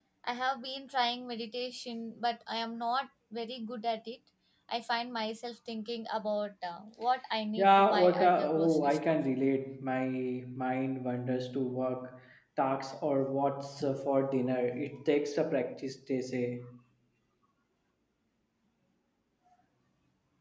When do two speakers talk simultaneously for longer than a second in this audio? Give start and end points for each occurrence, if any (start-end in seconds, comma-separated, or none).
7.6-9.2